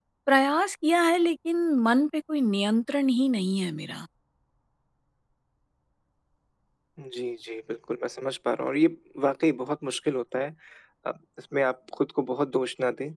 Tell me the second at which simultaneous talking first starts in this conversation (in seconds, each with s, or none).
none